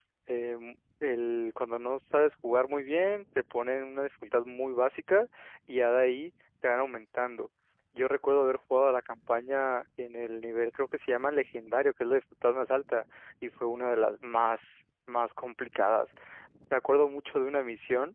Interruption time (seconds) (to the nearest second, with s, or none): none